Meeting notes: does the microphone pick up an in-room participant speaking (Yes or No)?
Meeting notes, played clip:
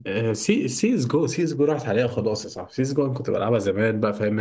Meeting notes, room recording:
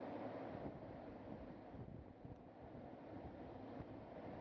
No